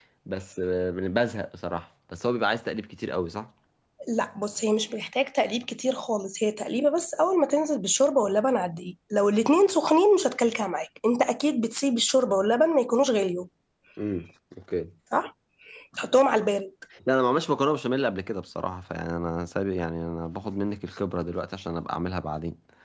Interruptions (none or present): none